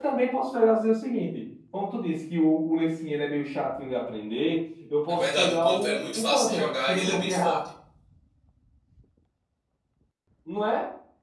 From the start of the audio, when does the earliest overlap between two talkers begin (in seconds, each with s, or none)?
5.1 s